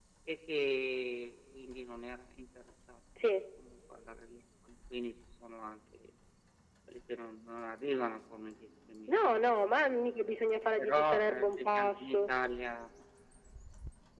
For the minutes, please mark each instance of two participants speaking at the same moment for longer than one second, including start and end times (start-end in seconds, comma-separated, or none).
10.8-12.3